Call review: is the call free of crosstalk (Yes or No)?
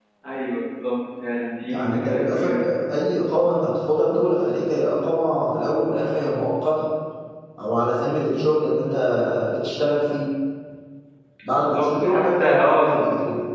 No